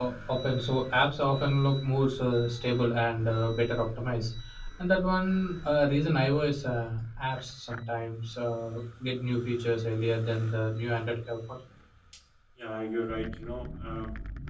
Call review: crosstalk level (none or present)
none